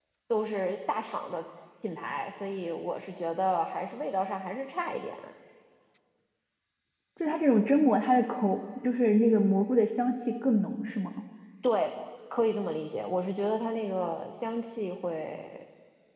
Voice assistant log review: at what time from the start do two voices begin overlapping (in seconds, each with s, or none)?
none